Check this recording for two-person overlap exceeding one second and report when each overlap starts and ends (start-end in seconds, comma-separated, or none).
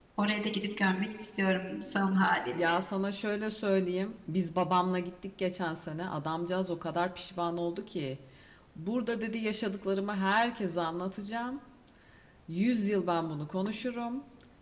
none